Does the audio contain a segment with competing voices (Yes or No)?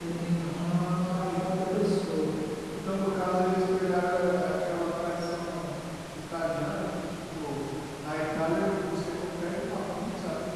Yes